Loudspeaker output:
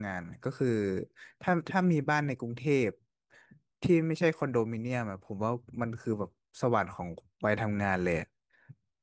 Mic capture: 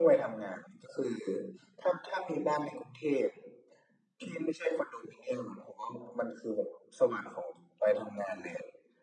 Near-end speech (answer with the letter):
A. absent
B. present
A